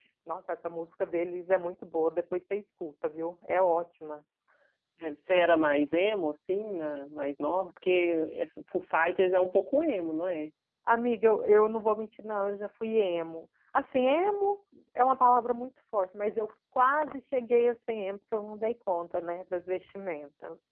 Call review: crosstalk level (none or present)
none